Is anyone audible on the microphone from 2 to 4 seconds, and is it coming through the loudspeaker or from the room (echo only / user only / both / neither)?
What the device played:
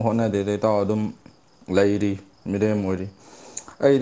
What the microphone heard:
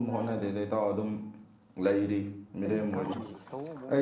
both